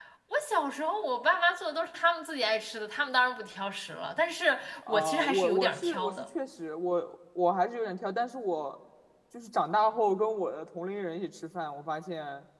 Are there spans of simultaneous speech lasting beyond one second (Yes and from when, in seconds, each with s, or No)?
Yes, from 4.9 s